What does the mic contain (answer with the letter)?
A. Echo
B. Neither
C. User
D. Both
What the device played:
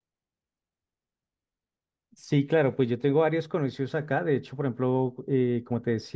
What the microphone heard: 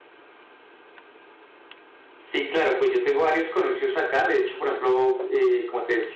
A